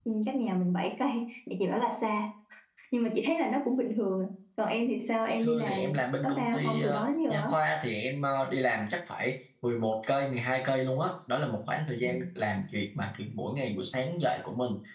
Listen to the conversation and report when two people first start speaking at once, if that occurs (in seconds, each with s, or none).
5.2 s